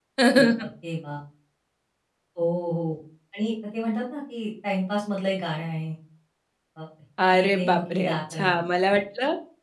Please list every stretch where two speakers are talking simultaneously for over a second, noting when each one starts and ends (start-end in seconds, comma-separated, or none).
7.3-8.5